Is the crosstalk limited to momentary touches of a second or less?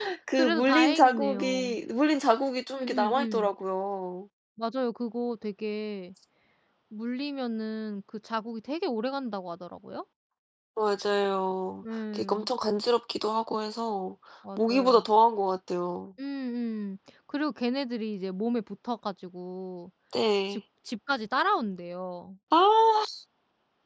No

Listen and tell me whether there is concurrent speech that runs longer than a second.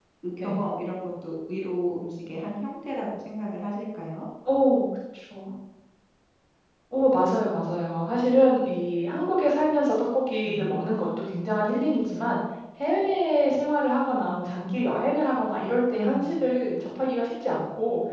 No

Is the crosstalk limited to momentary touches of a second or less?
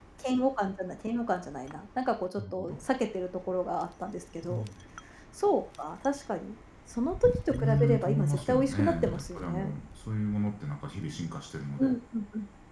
No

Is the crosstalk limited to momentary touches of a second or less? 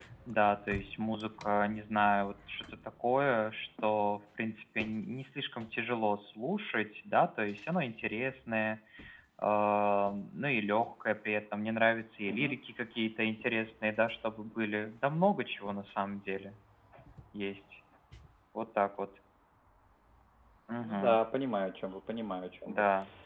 Yes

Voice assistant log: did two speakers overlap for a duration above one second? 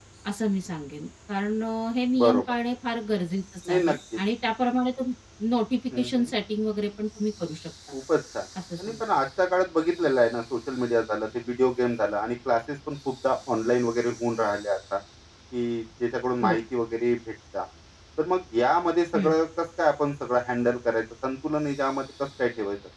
No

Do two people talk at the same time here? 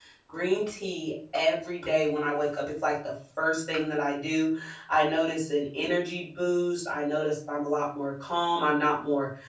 No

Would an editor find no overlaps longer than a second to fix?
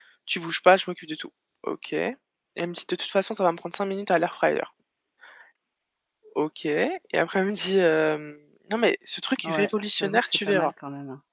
No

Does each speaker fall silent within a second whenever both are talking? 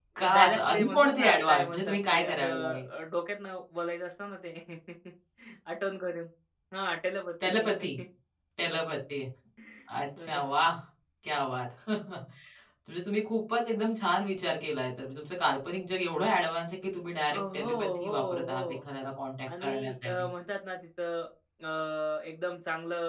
No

